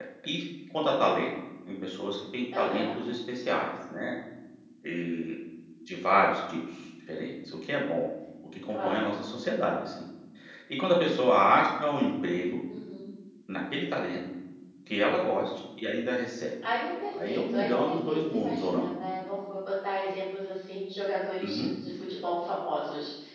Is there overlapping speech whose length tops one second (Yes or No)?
Yes